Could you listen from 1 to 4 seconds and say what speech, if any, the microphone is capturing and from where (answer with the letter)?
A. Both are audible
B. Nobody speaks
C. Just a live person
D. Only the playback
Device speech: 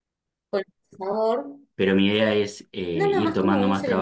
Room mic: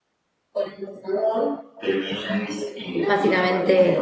A